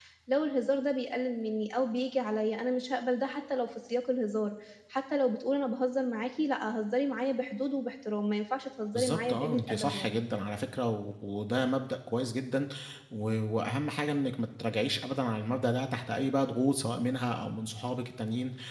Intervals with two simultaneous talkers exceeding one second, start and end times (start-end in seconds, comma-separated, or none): 8.9-10.2